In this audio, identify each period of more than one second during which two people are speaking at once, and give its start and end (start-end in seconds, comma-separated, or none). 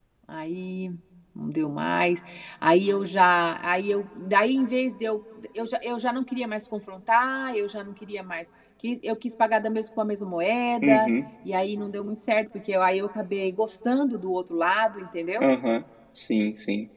none